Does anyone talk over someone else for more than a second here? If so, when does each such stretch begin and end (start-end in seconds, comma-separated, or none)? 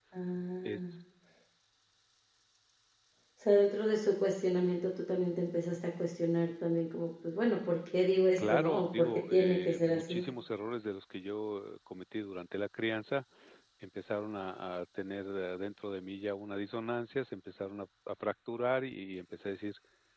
8.4-10.2